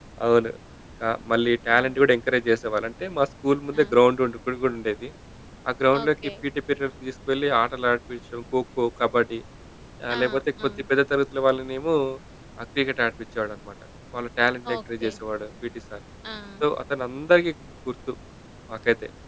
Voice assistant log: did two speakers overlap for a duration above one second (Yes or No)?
No